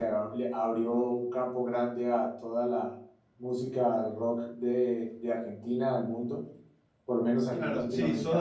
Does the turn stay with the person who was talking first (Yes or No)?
No